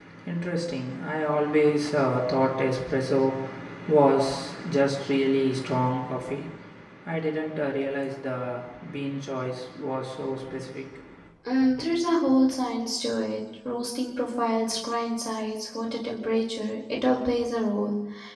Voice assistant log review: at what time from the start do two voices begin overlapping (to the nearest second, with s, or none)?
none